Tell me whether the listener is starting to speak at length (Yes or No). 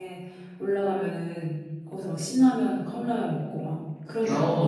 Yes